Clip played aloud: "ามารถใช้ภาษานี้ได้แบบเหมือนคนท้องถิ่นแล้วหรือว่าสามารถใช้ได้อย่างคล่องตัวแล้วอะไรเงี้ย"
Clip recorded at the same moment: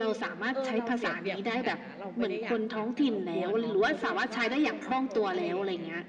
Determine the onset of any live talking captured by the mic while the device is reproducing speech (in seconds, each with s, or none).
0.5 s